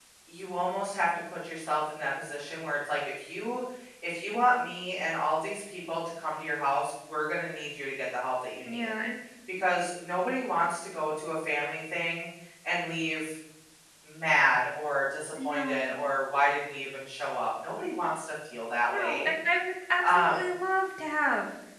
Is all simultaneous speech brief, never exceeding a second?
Yes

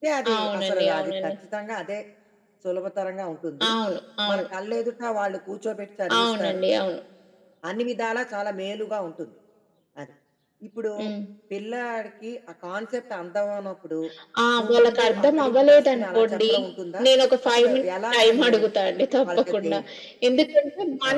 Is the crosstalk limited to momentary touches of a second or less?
No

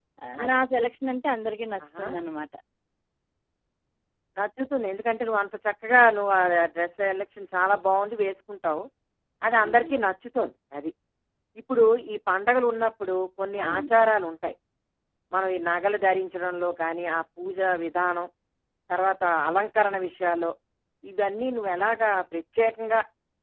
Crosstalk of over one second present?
No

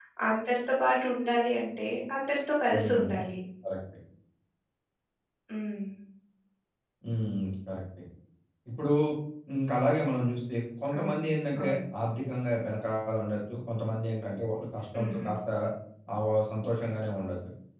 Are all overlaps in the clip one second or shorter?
Yes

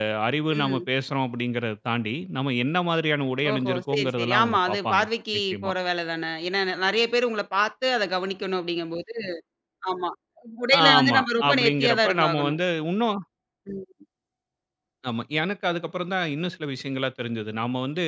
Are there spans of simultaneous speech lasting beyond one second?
Yes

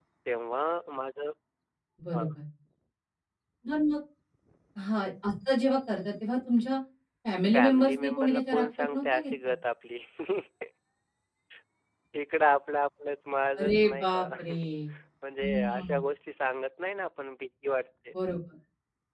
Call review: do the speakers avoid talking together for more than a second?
No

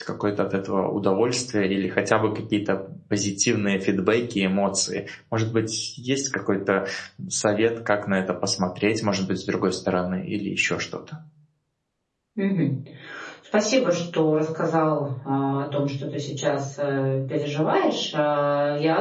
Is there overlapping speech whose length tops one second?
No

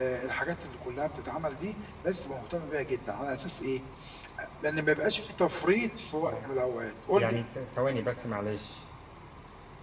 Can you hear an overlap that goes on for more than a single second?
No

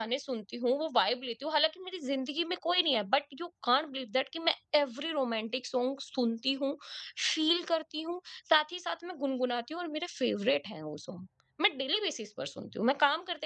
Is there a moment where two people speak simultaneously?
No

